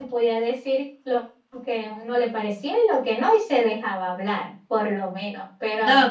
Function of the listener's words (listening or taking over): taking over